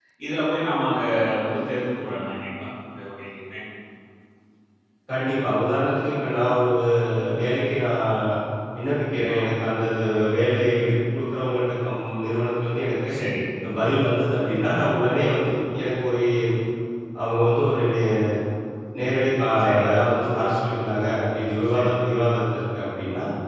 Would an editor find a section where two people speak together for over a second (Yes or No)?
No